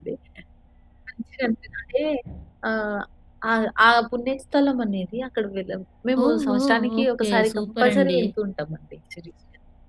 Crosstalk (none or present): present